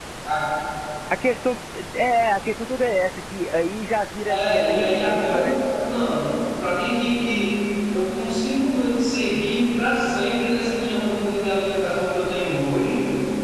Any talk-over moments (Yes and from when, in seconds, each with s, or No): Yes, from 4.3 s